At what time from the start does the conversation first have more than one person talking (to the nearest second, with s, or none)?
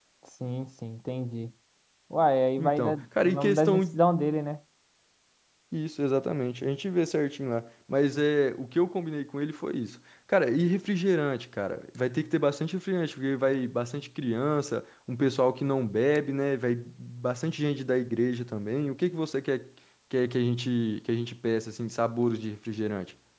3 s